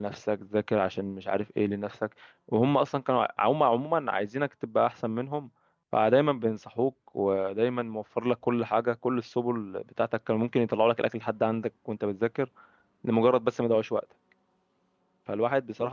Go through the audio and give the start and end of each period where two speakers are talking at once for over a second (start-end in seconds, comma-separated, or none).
none